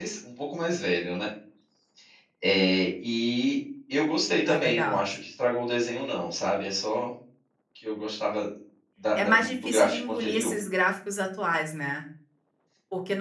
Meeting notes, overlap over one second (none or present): present